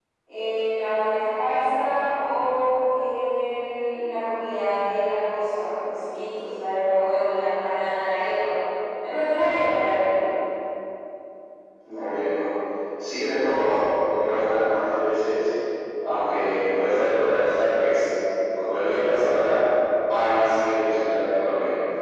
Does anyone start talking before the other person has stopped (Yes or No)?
No